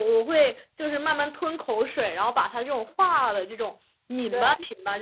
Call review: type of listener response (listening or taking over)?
listening